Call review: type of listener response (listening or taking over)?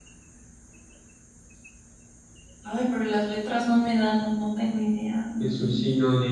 taking over